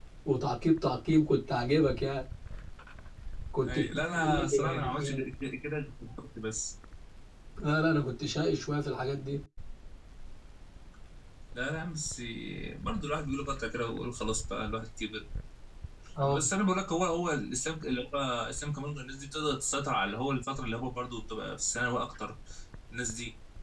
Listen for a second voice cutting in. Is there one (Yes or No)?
Yes